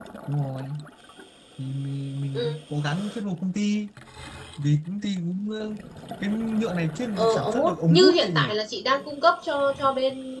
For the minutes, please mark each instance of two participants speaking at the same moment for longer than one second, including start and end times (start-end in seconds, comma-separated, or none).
7.2-8.4